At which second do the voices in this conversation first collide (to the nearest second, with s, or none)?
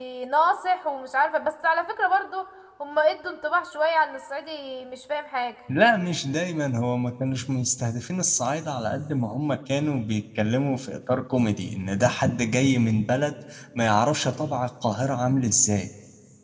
none